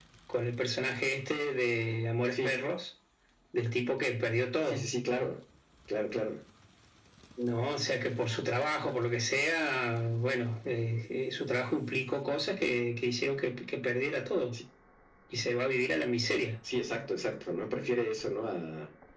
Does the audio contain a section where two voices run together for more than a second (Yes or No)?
No